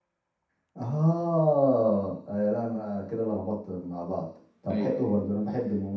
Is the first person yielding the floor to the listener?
No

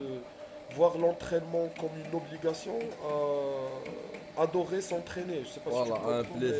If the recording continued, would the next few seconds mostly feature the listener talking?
Yes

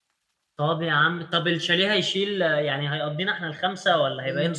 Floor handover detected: Yes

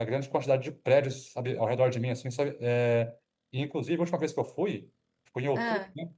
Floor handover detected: No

